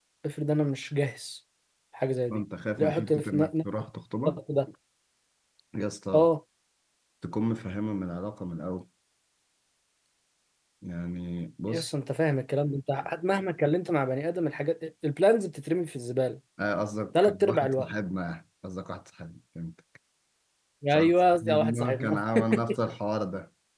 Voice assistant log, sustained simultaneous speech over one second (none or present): present